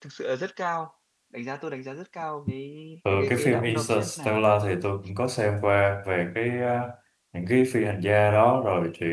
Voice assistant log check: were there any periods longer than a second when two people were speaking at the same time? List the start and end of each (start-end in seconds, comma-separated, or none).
3.1-4.4